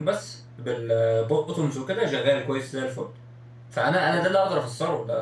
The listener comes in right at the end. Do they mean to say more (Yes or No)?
No